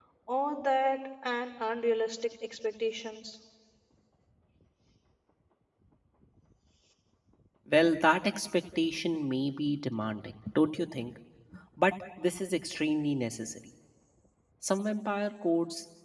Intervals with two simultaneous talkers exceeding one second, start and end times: none

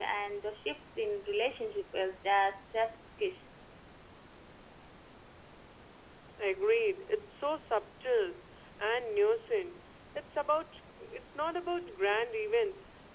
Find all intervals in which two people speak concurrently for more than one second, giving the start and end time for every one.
none

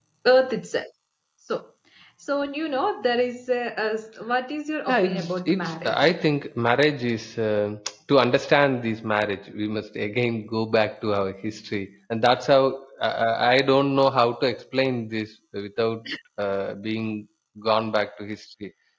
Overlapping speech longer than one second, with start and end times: 4.9-6.1

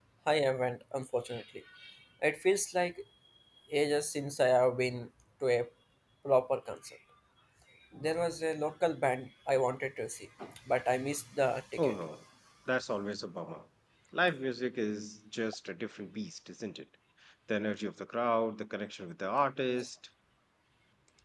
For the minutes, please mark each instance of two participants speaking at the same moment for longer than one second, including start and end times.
none

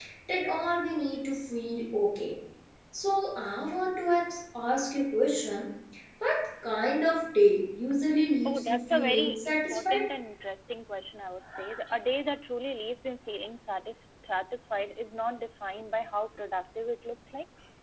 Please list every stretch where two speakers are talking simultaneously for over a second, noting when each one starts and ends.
8.4-10.0

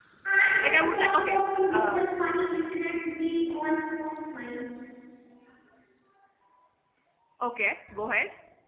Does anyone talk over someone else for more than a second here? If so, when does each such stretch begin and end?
0.6-2.0

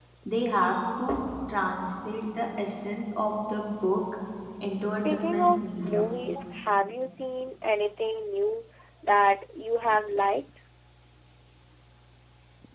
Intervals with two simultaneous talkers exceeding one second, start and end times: 4.8-6.2

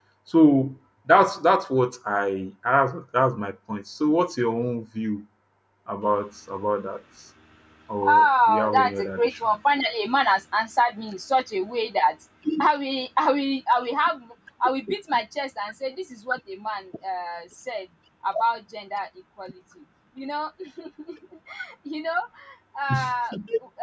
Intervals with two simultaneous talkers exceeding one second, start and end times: 8.1-9.6

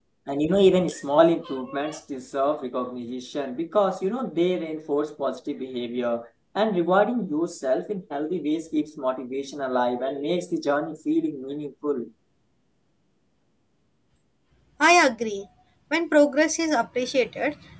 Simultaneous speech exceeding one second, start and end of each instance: none

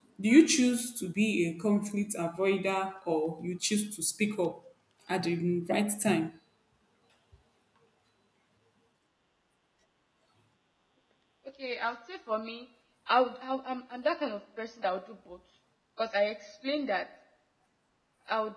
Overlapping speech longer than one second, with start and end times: none

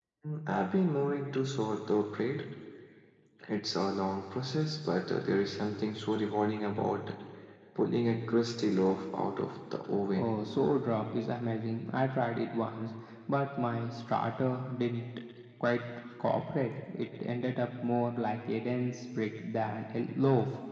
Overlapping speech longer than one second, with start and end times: none

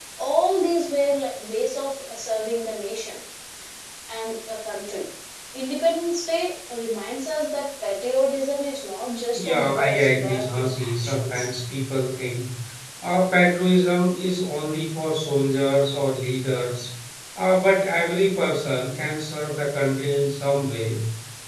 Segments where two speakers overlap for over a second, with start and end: 9.3-11.4

